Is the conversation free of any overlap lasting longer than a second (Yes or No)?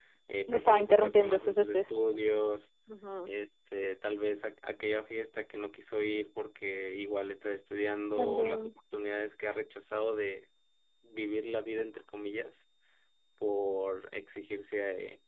No